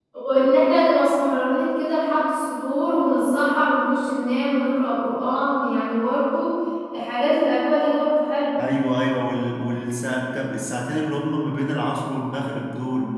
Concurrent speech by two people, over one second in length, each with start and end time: none

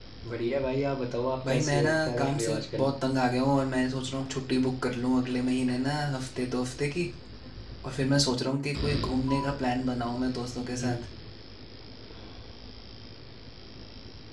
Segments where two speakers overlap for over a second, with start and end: 1.4-2.9

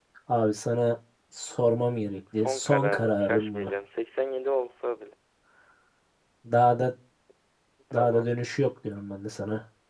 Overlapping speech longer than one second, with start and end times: 2.4-3.7

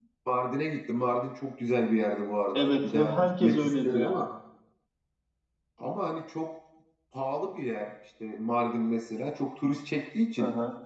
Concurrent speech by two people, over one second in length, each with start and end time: 2.5-4.2

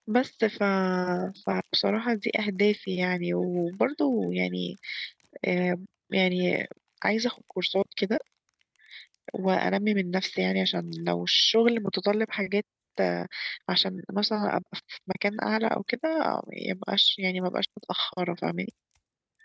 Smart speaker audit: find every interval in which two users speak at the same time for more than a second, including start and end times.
none

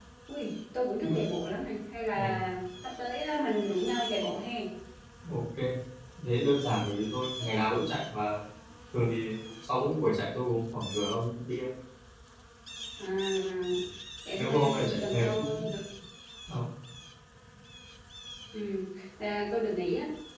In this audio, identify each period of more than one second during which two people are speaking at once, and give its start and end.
14.4-15.8

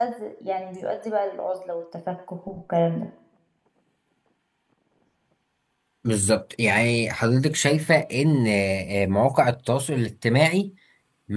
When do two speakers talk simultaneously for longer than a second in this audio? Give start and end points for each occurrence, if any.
none

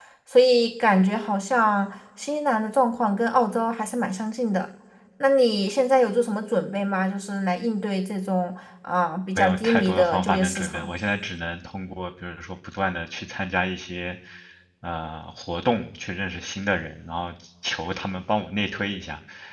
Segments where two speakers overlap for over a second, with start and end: 9.4-10.9

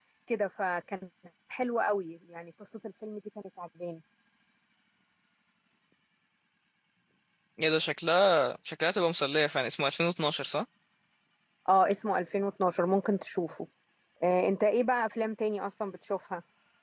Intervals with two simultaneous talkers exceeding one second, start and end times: none

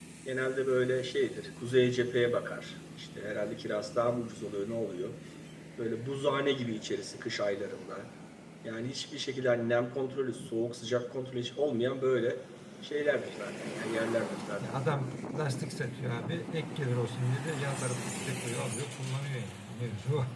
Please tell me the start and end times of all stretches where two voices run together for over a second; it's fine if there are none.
none

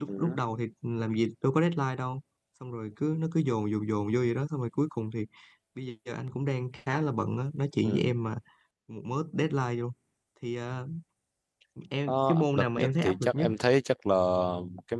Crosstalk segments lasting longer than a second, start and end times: 12.1-13.5

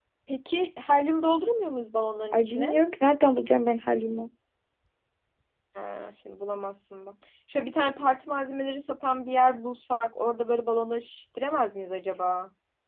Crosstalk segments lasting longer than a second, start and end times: none

